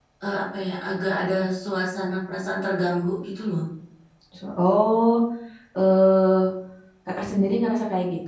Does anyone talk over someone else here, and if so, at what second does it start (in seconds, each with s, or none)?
none